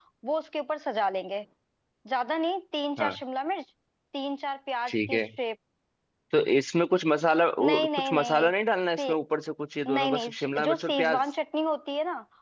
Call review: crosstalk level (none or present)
present